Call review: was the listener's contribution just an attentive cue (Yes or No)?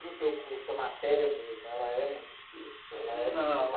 No